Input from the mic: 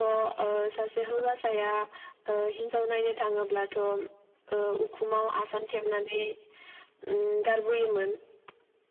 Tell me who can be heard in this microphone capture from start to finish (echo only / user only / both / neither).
echo only